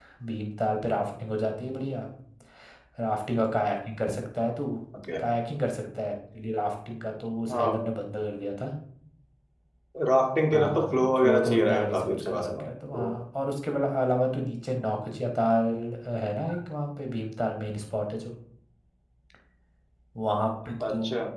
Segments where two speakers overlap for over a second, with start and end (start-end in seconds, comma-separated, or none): 10.5-13.0